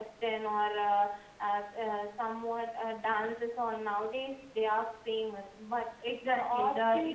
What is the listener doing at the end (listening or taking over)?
taking over